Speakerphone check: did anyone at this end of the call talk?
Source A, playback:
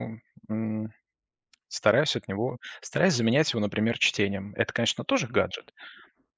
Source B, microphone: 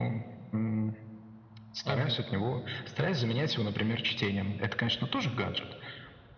Yes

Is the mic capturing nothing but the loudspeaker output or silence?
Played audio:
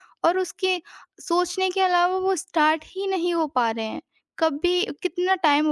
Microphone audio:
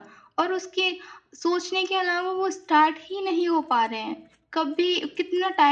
Yes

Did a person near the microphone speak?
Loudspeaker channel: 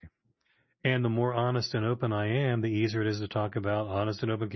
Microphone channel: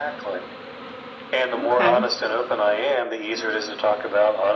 Yes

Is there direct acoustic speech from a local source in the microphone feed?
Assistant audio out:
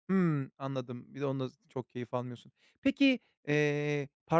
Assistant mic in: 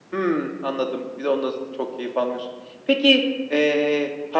No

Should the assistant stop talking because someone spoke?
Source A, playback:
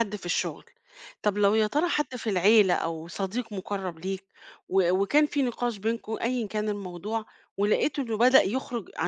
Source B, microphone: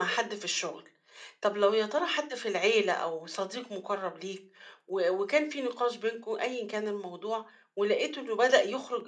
No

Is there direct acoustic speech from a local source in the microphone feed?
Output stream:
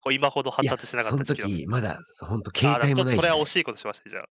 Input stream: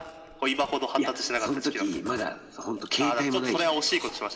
No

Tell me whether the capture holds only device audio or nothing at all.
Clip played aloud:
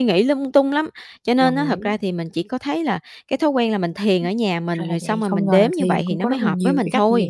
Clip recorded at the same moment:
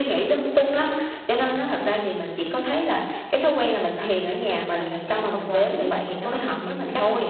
Yes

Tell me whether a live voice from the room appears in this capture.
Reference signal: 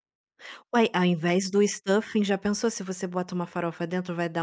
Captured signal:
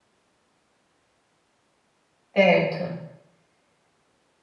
Yes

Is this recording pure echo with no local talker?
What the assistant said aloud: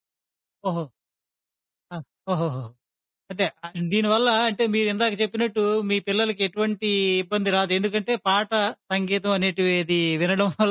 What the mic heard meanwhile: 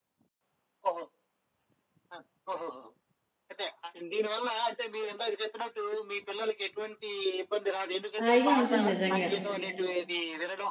No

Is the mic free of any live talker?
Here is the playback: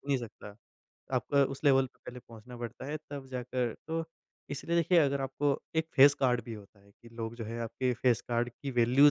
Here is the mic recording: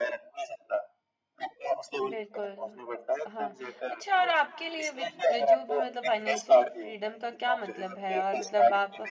No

